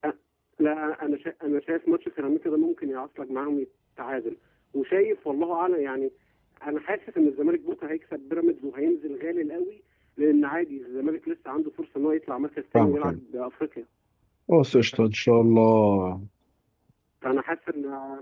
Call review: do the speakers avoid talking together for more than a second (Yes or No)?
Yes